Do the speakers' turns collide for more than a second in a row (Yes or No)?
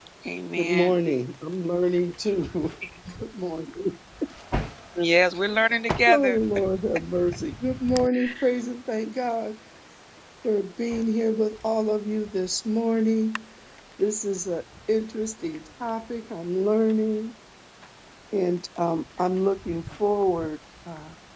No